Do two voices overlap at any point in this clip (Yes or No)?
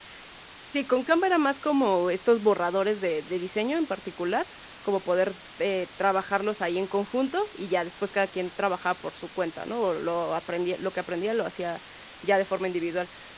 No